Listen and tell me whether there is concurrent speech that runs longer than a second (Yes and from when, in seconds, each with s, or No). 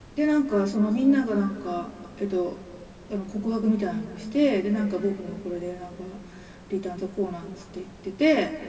No